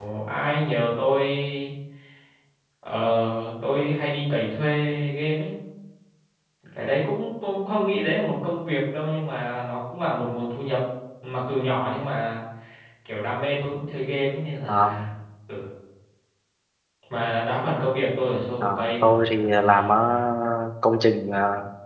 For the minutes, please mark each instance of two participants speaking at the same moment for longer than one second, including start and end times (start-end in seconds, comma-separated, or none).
18.6-20.0